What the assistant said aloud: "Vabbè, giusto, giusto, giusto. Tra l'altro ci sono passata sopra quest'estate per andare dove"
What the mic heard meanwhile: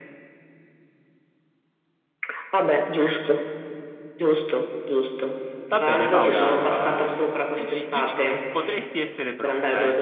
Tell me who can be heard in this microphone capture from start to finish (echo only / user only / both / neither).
both